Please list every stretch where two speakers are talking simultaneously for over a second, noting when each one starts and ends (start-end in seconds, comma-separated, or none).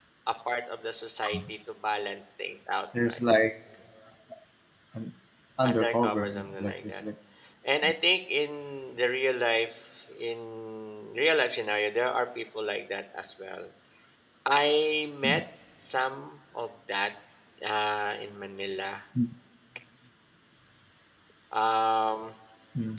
5.6-7.0